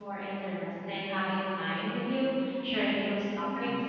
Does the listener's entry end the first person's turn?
No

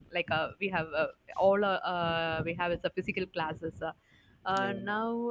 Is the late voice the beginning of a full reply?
No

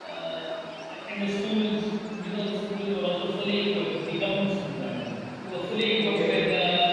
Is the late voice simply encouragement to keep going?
Yes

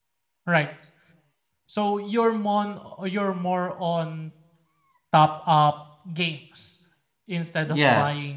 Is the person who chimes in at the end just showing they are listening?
Yes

